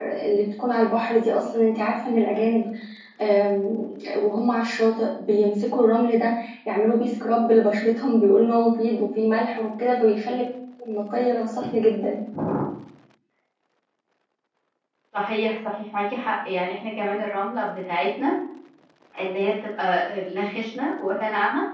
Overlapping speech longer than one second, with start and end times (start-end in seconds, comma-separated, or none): none